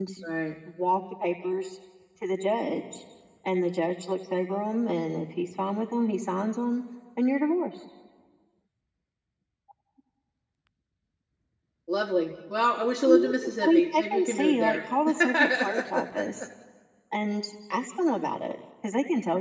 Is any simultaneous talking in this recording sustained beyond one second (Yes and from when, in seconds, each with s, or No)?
Yes, from 13.0 s